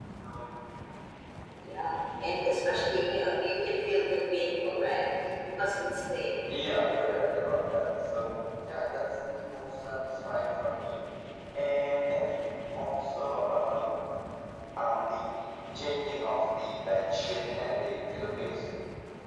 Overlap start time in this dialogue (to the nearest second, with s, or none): none